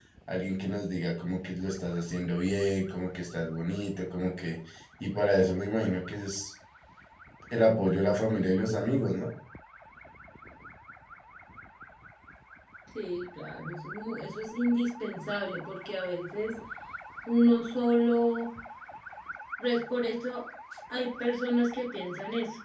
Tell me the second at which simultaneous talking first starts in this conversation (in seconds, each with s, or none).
none